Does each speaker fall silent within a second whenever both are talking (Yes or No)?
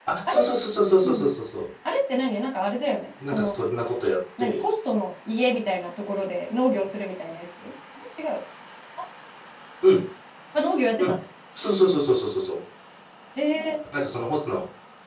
Yes